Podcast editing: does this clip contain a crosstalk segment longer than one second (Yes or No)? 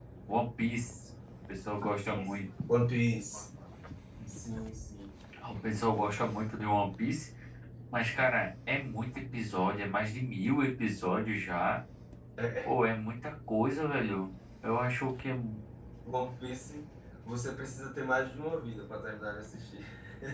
No